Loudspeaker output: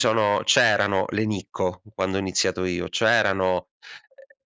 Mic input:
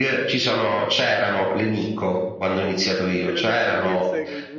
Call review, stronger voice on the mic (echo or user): echo